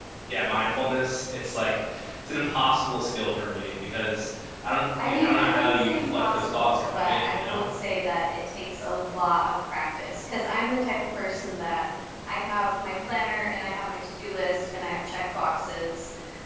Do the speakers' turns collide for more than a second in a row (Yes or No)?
Yes